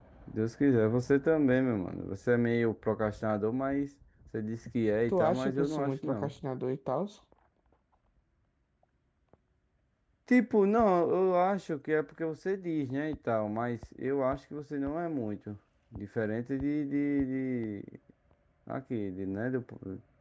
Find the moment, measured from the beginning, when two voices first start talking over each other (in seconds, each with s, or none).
5.1 s